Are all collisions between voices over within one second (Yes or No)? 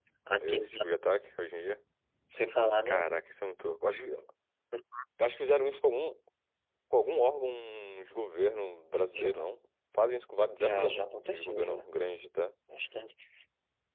No